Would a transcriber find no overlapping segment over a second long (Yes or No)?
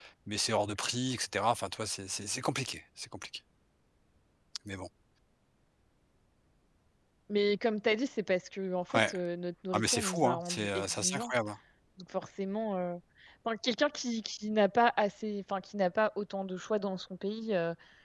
No